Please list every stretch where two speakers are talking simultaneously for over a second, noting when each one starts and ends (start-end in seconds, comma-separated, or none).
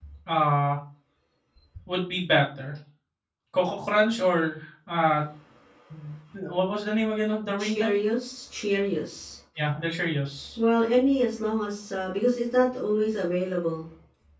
none